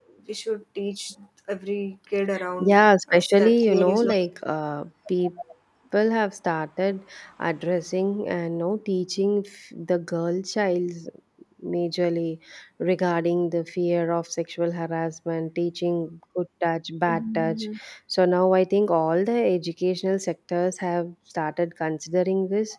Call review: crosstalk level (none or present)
present